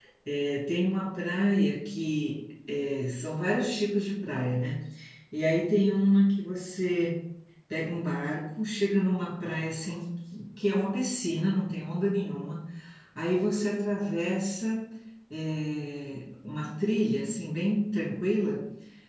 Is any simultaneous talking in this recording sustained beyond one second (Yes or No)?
No